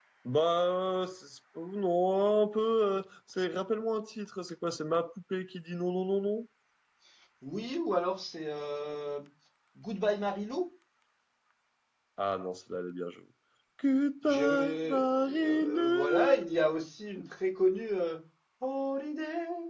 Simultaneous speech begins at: 14.3 s

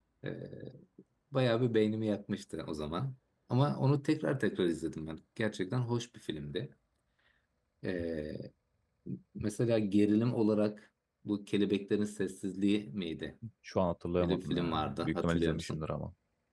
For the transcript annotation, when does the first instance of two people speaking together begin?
14.2 s

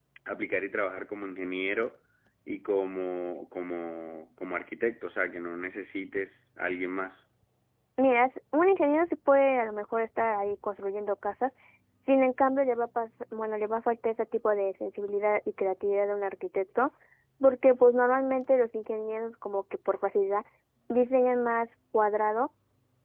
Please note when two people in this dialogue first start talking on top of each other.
none

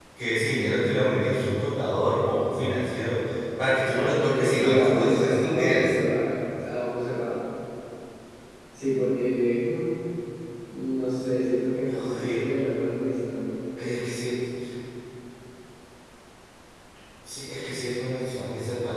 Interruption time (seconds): 4.3 s

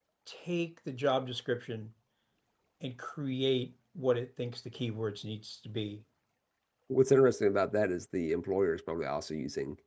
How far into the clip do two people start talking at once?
none

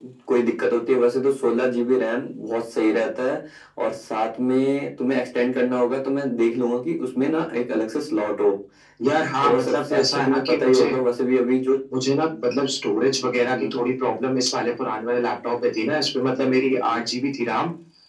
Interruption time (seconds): 9.4 s

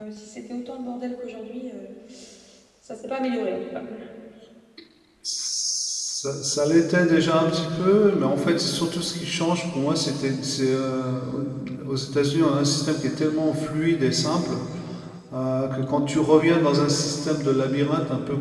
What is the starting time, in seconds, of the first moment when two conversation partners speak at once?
none

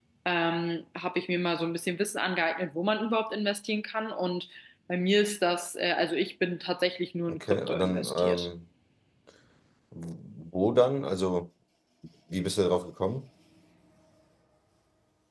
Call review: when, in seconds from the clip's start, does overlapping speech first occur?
7.3 s

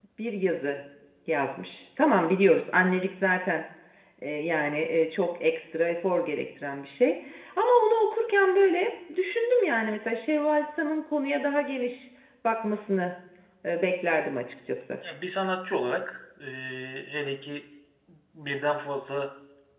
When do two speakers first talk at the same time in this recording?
none

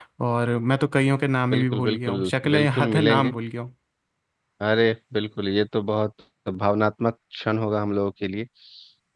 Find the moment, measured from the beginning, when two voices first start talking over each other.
1.5 s

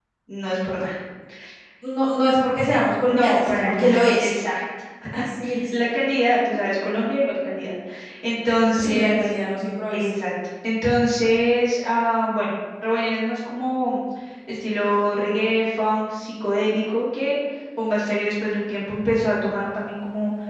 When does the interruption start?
3.0 s

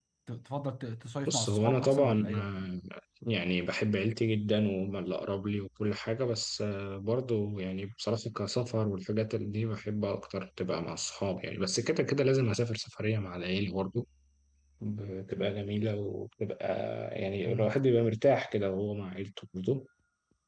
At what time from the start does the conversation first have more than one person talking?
1.3 s

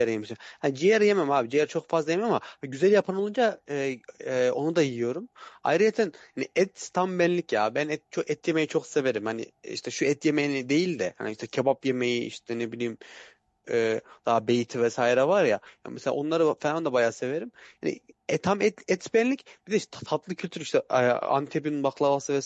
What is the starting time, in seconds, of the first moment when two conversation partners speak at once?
none

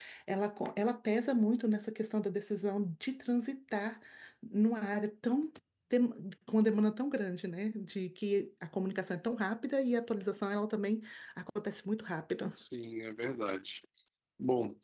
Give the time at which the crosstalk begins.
none

